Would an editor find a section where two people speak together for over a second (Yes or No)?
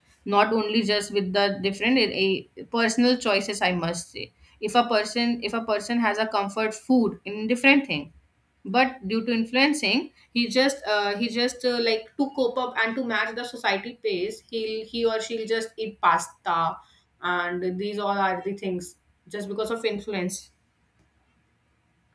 No